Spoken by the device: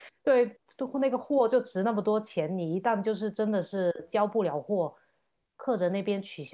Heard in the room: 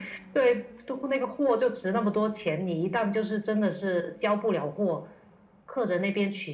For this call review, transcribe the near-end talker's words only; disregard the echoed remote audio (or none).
none